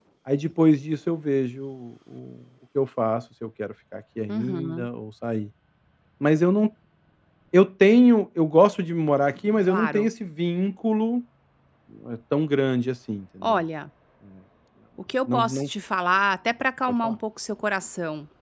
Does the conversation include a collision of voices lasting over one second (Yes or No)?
No